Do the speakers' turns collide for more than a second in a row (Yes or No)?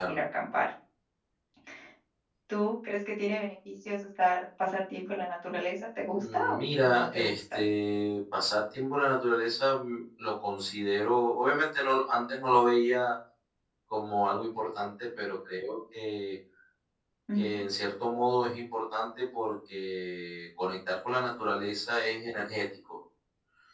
Yes